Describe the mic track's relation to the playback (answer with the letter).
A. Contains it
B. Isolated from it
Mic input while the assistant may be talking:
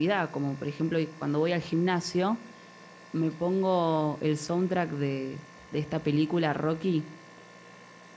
B